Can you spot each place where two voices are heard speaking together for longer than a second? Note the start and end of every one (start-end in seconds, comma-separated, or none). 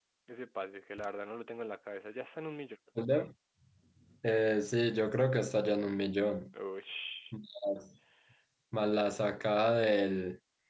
none